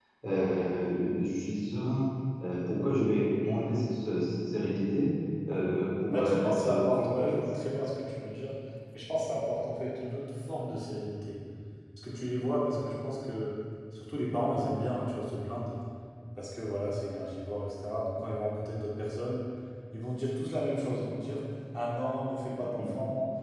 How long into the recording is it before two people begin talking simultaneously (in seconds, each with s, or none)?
6.1 s